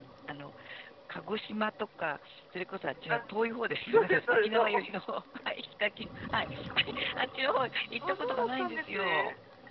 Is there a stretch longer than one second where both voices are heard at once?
Yes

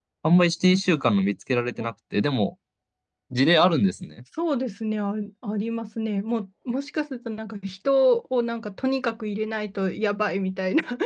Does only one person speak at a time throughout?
Yes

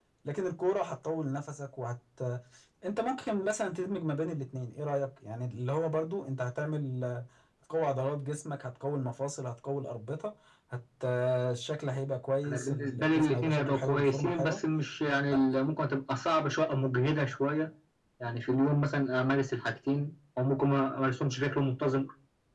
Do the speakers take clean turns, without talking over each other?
No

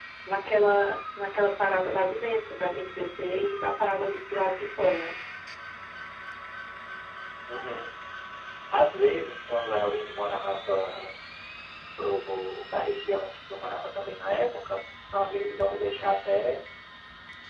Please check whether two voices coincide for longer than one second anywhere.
No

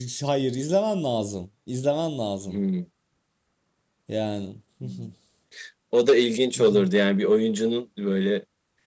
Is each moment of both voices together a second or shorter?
Yes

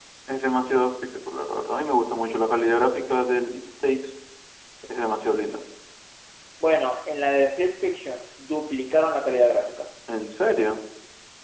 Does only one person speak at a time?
Yes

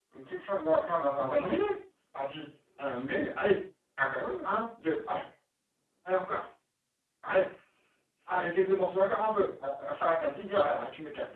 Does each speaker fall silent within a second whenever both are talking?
Yes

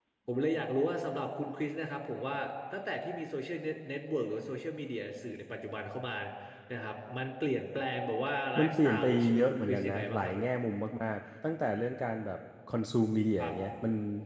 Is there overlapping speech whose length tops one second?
Yes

